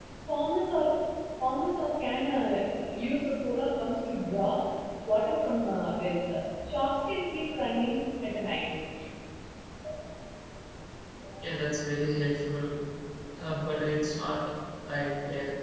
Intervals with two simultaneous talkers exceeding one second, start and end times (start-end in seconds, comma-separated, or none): none